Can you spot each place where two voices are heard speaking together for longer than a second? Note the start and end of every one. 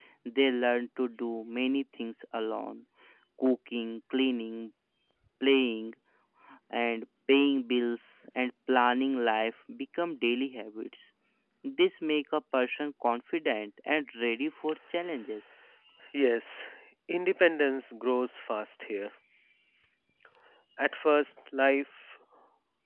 none

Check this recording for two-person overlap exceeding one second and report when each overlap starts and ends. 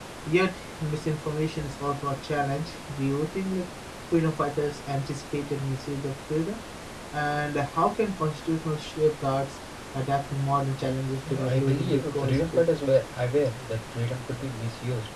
11.3-12.6

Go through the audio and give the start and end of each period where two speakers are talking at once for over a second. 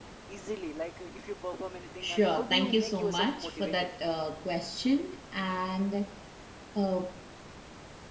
2.0-3.9

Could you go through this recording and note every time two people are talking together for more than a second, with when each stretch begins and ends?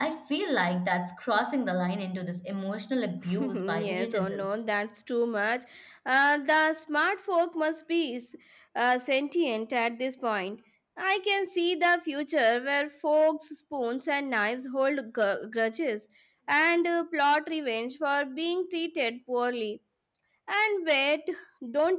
3.4-4.6

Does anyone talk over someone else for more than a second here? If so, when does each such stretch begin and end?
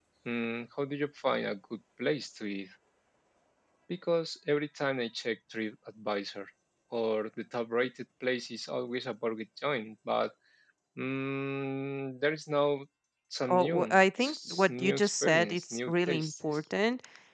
13.5-16.6

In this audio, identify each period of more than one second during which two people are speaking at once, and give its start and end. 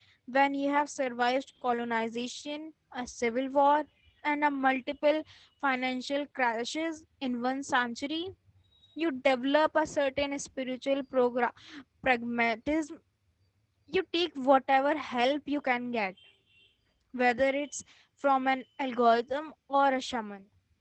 none

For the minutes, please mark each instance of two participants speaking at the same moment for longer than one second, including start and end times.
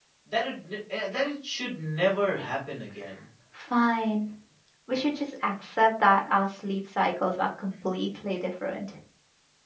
none

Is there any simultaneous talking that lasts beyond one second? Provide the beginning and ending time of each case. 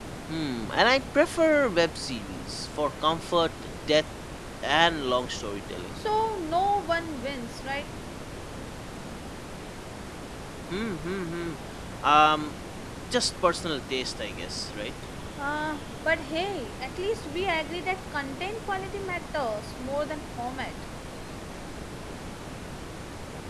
none

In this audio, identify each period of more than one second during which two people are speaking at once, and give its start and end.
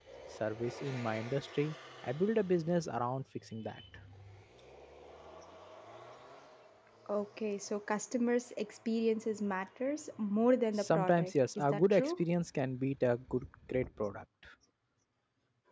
10.8-12.1

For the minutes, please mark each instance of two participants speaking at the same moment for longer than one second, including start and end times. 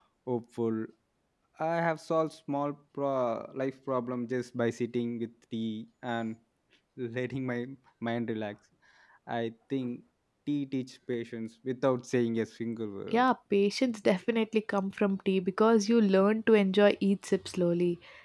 none

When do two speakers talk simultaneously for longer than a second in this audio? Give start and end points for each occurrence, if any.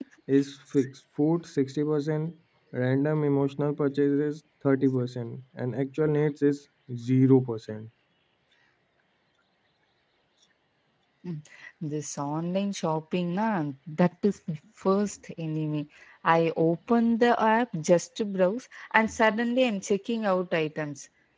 none

